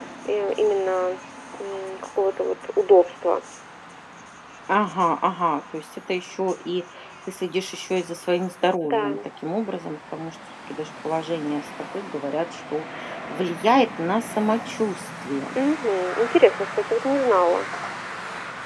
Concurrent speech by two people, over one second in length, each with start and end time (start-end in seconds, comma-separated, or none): none